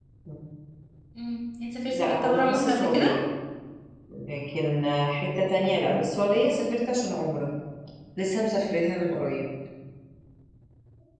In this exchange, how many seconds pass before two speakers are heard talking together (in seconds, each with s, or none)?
1.9 s